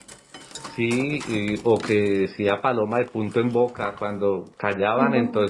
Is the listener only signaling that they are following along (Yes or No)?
Yes